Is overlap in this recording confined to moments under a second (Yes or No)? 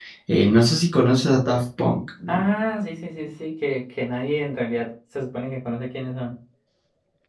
Yes